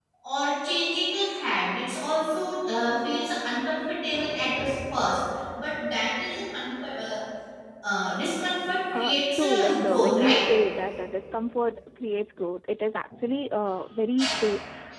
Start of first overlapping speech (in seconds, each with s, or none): 8.9 s